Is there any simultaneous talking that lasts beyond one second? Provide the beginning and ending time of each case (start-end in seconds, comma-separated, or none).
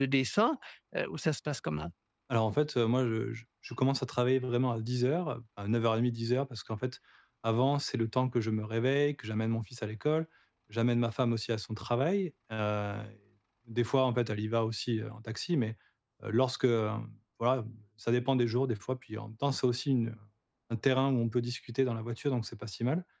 none